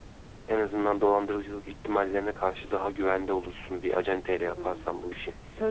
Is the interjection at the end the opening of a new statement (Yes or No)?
Yes